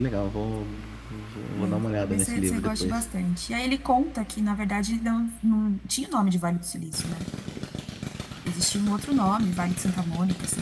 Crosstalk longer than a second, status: present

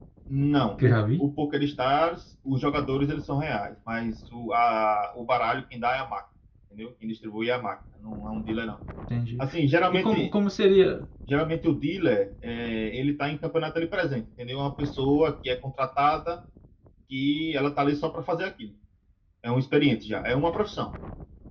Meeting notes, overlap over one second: none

